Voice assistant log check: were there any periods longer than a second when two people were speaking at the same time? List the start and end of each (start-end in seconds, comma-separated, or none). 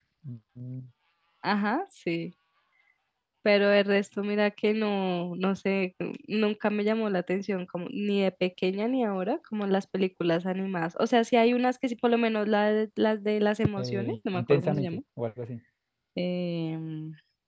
13.8-15.0